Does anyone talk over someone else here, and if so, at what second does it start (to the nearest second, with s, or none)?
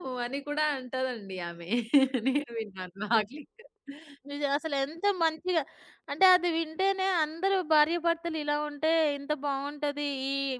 none